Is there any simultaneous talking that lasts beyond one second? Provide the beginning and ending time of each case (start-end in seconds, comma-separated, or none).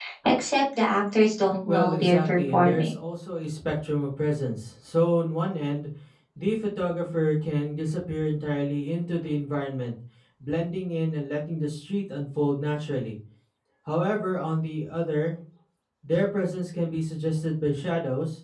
1.6-2.9